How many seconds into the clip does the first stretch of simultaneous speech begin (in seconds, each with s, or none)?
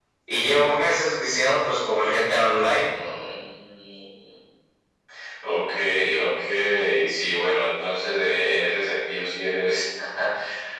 none